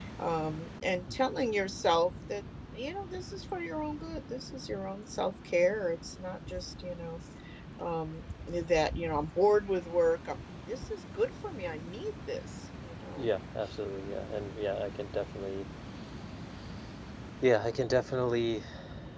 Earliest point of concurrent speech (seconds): none

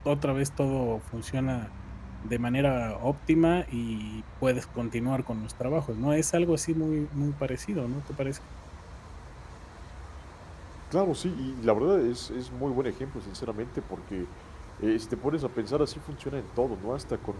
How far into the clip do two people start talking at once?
none

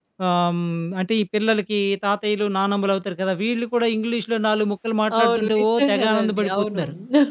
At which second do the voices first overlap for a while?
5.1 s

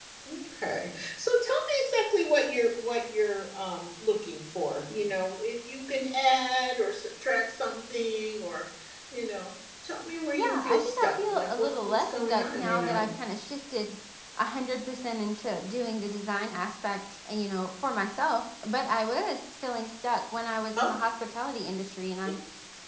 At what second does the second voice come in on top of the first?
10.3 s

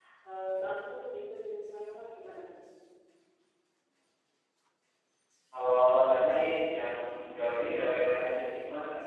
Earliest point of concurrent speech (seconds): 6.4 s

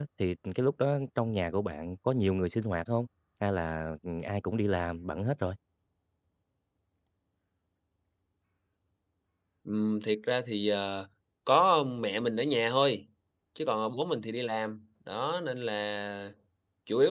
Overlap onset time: none

